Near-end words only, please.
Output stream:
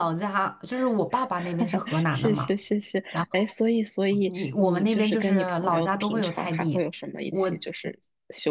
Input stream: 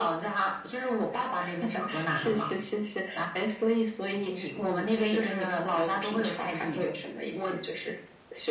none

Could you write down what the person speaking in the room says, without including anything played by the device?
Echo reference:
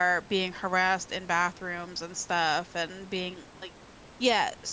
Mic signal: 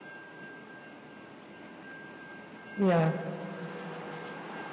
yeah

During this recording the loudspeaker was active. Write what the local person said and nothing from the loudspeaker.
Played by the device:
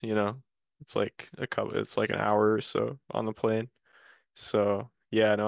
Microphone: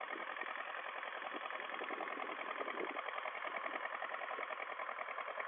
none

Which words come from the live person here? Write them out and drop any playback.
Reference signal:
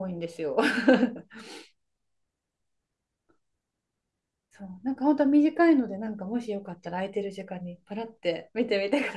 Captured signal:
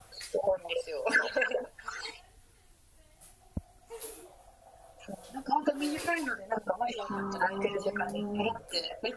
ああ。

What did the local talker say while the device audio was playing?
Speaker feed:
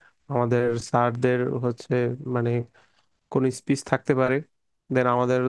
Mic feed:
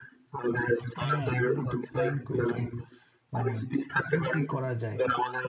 হ্যাঁ তাহলে একটা প্ল্যান করি চলো মানে কি কি করা যায়

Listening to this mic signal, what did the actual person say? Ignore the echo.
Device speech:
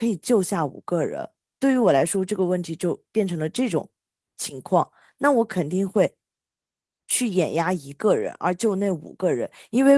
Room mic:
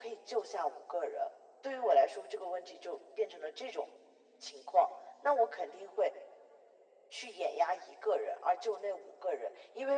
none

